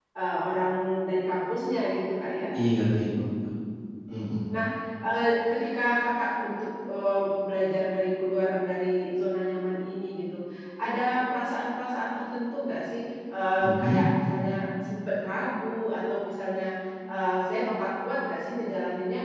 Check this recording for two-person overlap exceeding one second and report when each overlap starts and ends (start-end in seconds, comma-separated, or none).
none